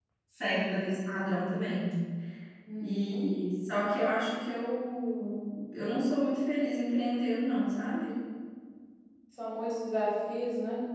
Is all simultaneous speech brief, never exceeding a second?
Yes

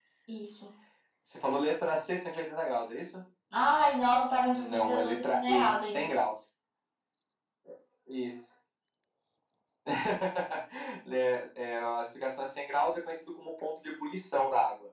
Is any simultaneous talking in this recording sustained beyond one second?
Yes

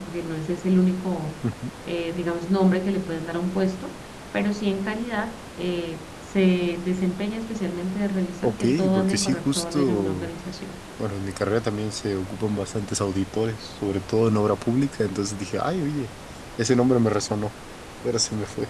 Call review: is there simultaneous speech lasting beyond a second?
Yes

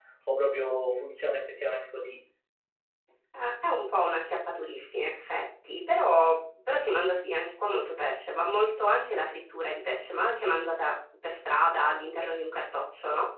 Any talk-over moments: No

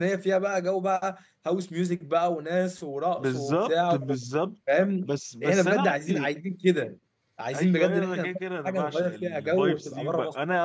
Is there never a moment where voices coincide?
No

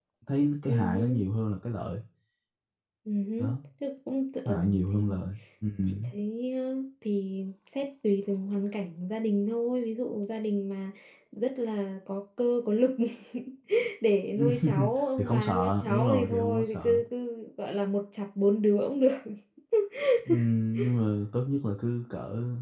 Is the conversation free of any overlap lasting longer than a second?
No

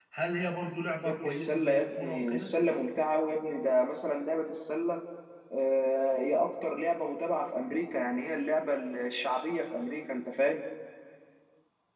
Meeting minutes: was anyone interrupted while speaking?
Yes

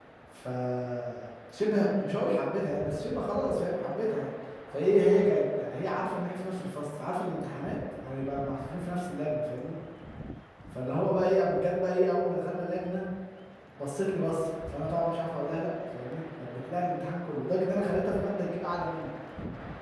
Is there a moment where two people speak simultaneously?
No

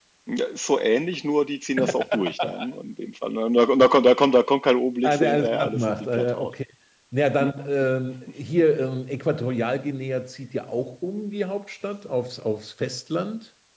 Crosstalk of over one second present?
Yes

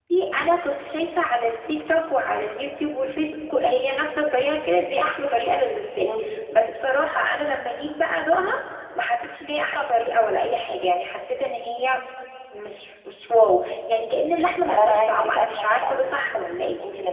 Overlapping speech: Yes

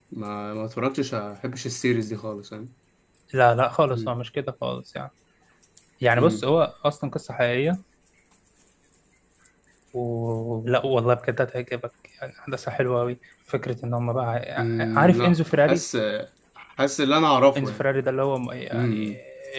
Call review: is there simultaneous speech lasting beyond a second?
Yes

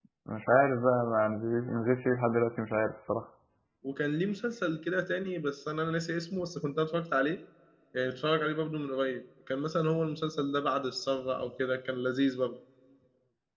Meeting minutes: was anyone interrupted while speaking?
No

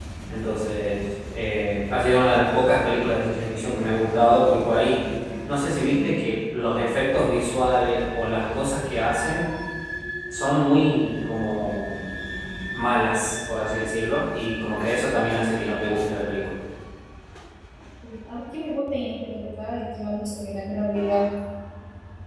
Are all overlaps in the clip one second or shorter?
Yes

